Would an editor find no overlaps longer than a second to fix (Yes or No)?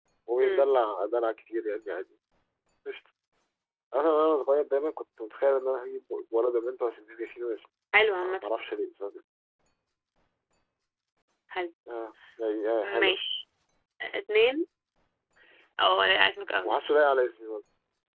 Yes